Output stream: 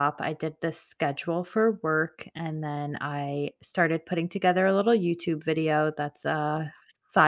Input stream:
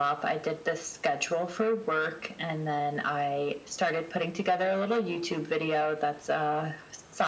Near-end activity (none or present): none